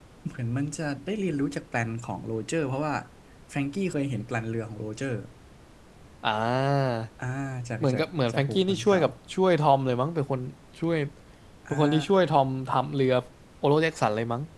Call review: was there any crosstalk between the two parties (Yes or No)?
Yes